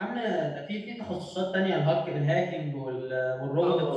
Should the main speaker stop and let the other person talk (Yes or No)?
Yes